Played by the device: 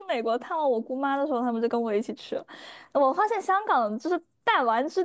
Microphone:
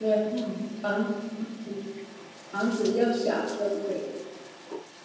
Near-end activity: present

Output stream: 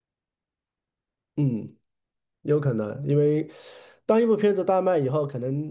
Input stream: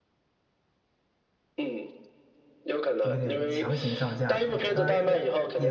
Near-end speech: present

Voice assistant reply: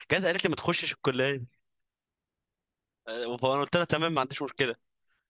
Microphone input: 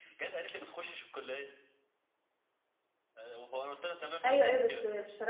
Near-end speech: present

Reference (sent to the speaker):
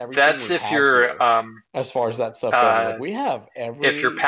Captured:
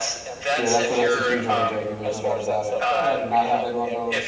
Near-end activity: present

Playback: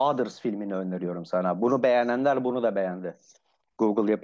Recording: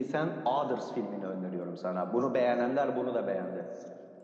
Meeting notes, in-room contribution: none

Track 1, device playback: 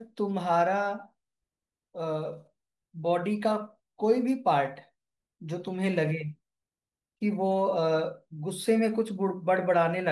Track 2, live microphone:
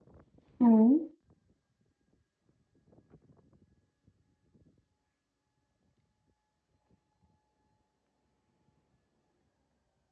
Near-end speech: present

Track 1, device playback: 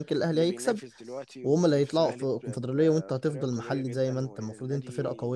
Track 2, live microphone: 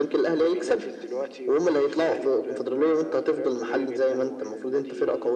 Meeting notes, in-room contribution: none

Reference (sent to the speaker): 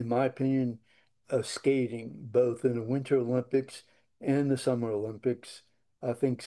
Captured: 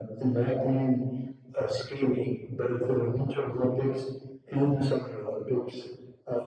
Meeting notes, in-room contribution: none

